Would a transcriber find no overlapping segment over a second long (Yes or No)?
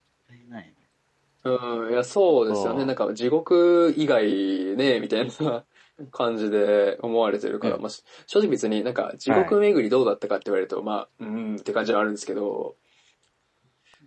Yes